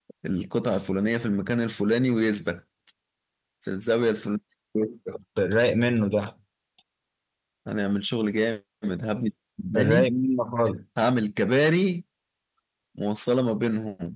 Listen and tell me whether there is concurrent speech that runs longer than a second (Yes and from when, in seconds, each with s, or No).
No